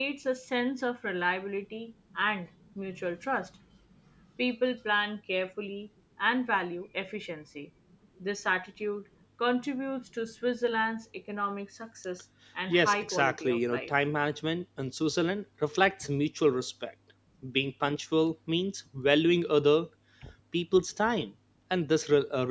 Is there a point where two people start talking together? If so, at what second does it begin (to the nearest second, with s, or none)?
13 s